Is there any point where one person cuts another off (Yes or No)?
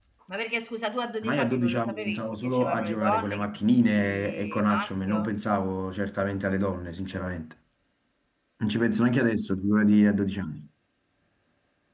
Yes